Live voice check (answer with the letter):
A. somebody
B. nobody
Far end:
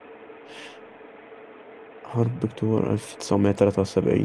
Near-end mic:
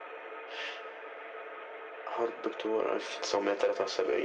B